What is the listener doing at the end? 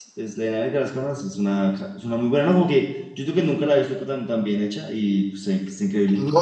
taking over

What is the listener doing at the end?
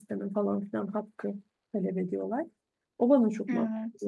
listening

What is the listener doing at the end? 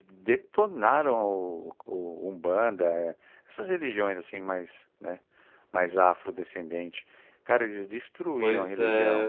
listening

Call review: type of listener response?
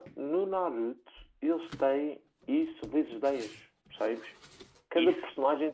listening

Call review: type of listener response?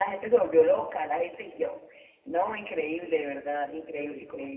listening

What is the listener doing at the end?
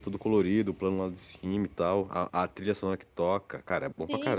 taking over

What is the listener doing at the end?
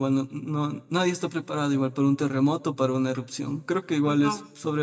listening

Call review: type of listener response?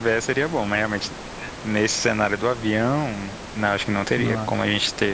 listening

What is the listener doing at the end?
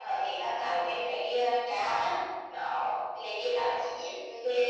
taking over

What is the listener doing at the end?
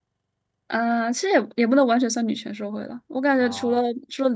listening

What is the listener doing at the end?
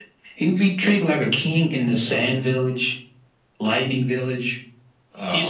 taking over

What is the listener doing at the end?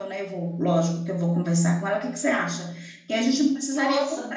listening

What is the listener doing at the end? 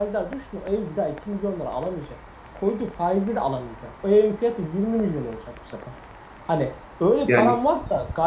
listening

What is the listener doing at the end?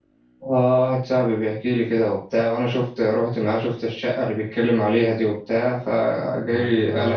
taking over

